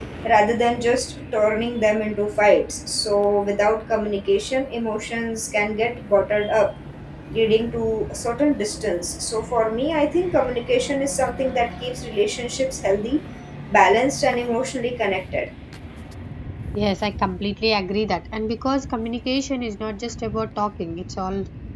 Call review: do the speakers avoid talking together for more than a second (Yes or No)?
Yes